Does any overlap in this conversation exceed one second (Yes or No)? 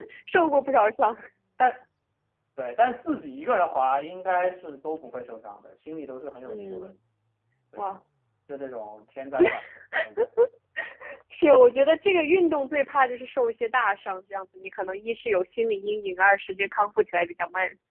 No